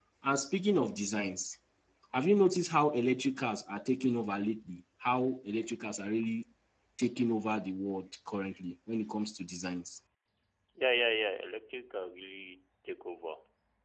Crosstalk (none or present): none